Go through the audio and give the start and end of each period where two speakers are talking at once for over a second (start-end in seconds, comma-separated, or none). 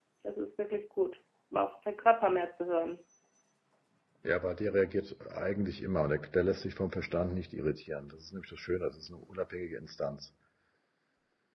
none